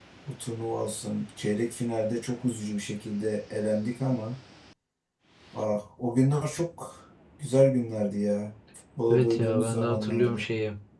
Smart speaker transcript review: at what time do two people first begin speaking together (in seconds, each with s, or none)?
9.1 s